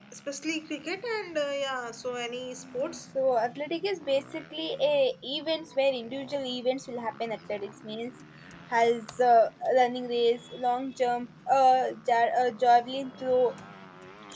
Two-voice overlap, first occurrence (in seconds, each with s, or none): none